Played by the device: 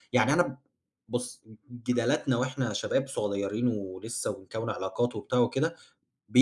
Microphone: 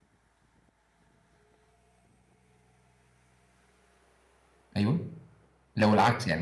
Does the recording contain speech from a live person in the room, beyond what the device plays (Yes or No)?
Yes